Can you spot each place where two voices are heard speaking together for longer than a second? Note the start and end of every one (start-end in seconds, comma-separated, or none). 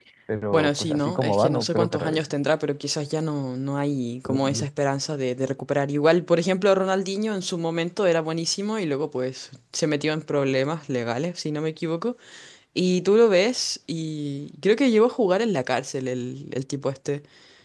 0.5-2.2